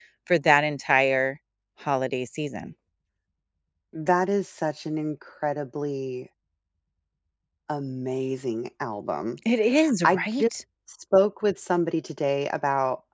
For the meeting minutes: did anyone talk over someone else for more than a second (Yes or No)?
No